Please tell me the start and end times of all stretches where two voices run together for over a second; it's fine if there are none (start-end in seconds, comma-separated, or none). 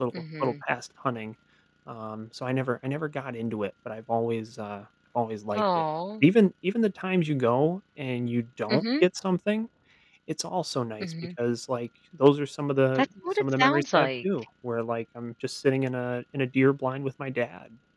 13.0-14.2